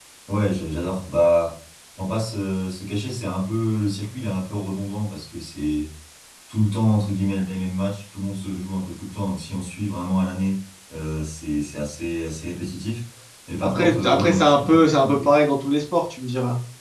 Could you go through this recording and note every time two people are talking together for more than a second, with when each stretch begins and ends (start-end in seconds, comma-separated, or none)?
13.6-15.3